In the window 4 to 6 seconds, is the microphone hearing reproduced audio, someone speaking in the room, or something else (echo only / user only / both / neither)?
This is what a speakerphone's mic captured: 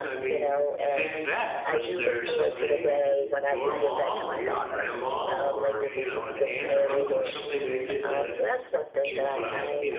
both